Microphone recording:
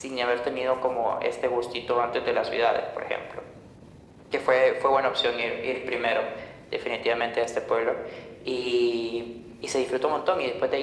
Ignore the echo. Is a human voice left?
No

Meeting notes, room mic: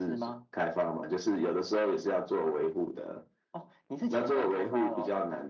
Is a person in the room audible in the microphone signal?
No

